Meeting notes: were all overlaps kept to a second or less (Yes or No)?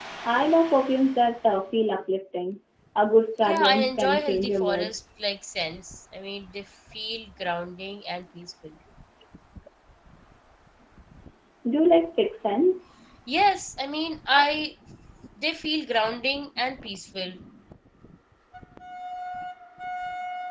No